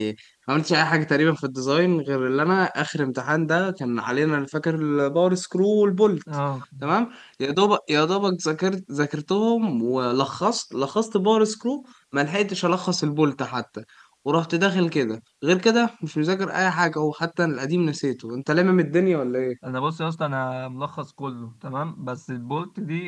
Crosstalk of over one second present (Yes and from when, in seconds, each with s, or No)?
No